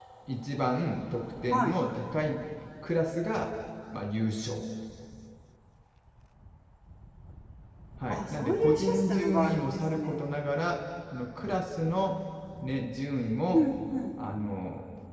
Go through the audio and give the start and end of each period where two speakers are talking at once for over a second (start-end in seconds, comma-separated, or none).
8.1-10.2